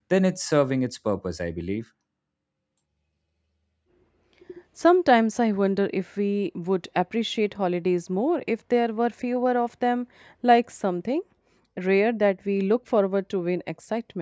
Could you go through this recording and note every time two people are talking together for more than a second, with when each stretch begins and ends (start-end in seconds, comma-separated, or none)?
none